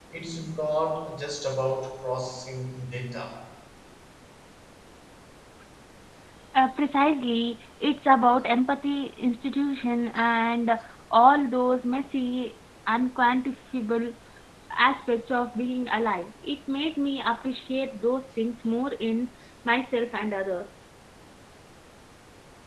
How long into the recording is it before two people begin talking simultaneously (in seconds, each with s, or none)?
none